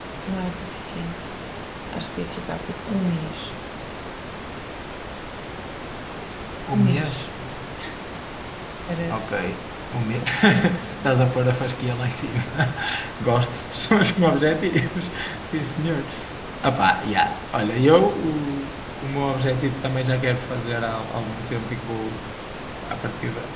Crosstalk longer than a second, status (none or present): none